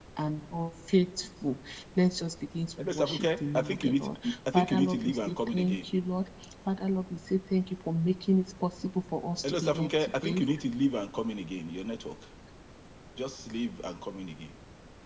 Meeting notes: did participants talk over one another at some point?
Yes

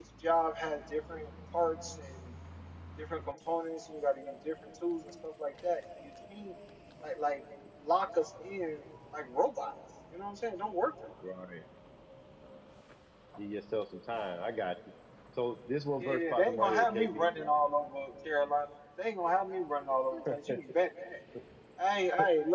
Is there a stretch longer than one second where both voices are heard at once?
Yes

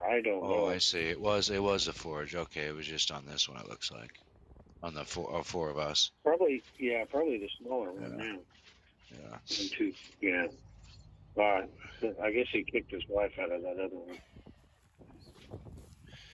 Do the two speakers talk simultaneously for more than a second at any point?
No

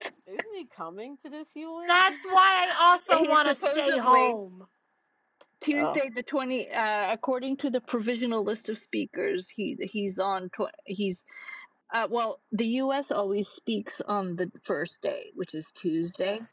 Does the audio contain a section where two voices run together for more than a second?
Yes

